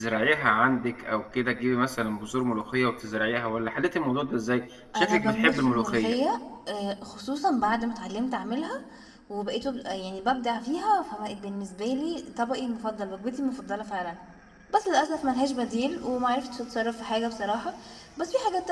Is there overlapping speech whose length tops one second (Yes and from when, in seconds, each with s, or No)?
Yes, from 4.9 s